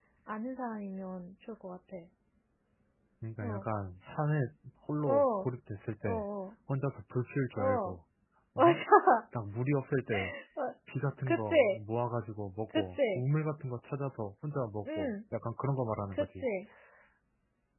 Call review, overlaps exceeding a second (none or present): none